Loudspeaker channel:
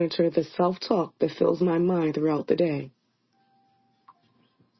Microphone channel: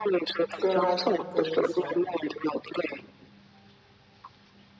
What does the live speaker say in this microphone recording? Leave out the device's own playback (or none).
Grand Rising, I'm good in yourself.